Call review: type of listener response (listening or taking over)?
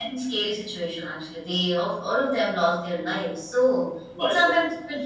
listening